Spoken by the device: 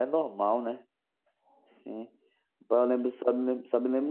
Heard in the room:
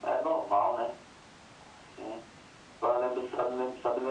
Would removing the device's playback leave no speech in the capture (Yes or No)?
Yes